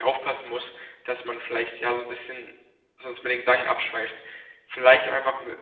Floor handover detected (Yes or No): No